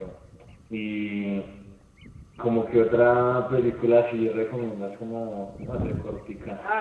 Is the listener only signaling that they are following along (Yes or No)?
No